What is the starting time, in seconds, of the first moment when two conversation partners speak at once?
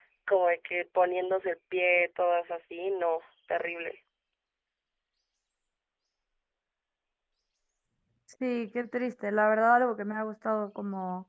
none

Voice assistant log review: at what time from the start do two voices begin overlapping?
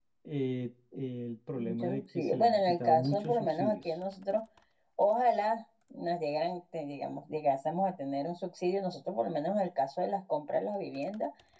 2 s

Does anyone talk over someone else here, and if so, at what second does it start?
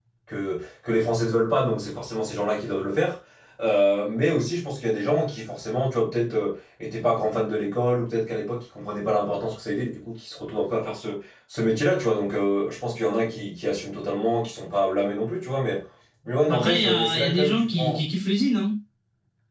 16 s

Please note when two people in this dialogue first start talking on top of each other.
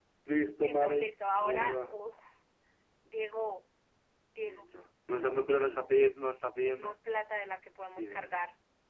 1 s

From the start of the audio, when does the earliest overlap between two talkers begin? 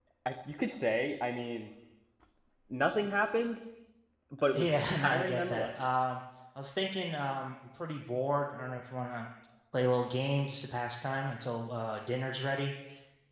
5 s

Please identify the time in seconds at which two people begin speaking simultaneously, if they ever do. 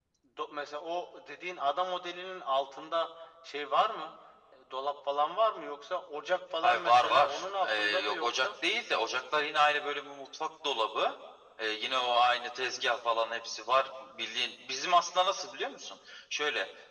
7 s

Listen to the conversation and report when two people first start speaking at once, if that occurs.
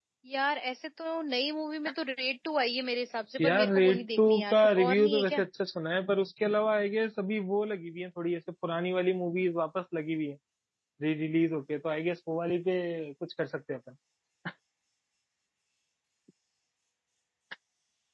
3 s

